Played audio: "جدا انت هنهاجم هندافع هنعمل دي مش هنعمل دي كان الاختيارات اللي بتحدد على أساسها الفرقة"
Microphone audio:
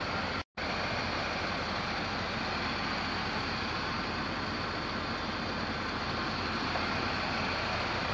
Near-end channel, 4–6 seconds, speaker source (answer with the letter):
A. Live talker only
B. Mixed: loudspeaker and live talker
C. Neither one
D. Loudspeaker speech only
C